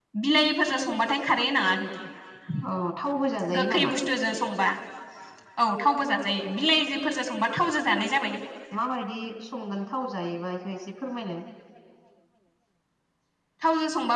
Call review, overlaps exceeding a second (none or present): none